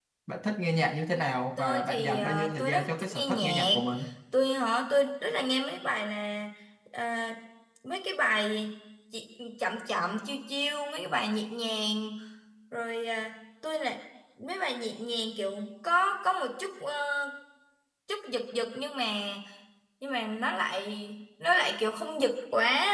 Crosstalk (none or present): present